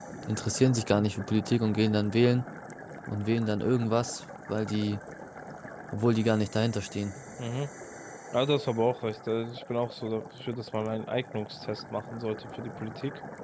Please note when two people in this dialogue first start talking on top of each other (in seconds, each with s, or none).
none